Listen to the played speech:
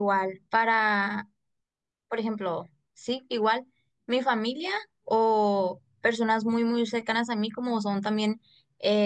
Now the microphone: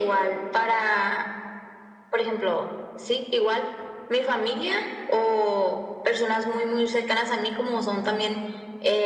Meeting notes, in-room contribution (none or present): none